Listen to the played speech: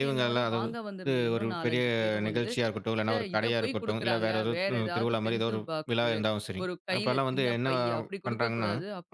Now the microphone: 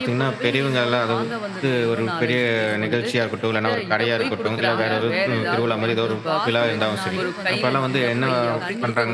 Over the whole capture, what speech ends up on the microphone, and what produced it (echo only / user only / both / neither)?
both